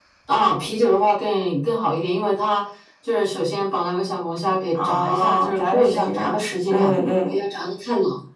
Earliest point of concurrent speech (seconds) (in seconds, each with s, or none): 4.7 s